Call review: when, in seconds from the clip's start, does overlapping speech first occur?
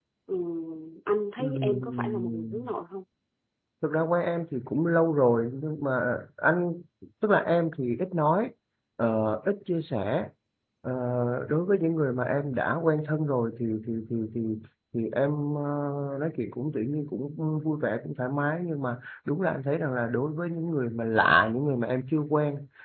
1.4 s

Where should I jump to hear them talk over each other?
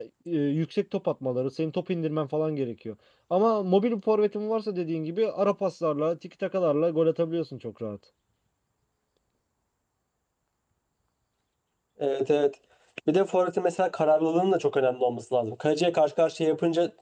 none

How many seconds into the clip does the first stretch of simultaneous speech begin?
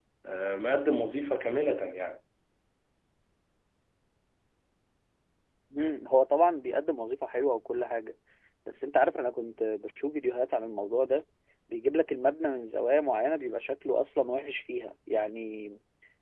none

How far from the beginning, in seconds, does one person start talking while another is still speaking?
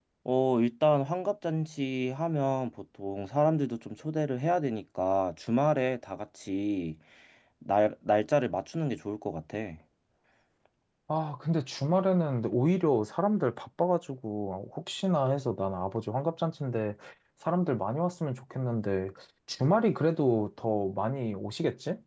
none

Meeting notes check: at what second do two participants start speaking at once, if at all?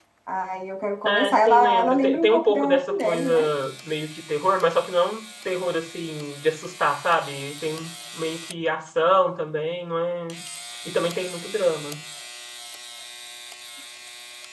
1.1 s

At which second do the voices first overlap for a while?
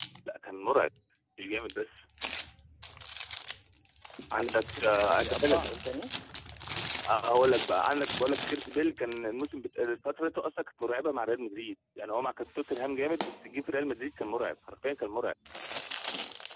4.3 s

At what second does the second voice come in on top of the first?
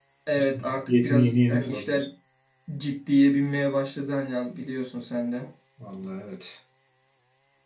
0.5 s

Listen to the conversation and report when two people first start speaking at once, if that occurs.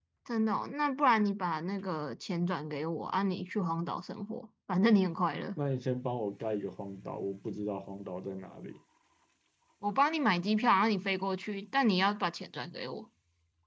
none

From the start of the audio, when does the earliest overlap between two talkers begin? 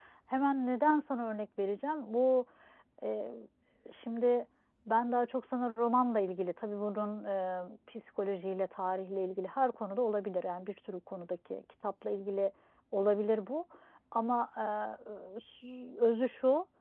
none

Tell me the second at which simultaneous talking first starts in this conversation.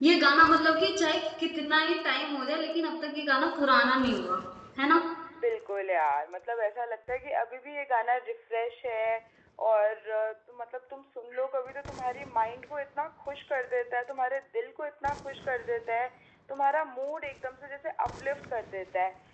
none

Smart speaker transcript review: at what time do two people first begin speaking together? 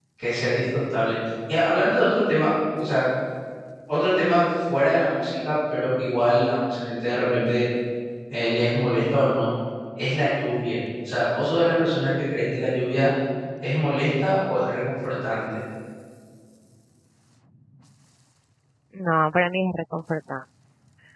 none

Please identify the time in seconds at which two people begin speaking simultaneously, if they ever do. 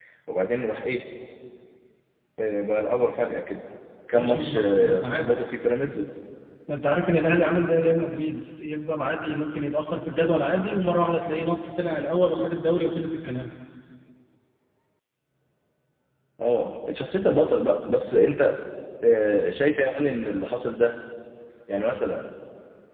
4.1 s

